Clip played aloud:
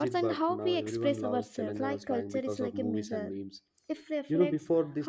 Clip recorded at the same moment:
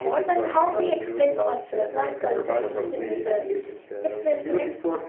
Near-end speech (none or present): present